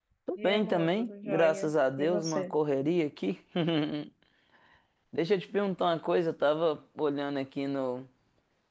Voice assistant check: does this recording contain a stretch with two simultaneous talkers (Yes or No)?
Yes